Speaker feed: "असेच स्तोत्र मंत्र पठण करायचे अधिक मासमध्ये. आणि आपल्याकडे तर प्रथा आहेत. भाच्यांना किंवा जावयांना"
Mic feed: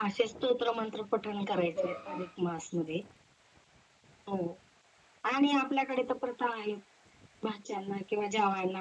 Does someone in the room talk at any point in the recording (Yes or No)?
Yes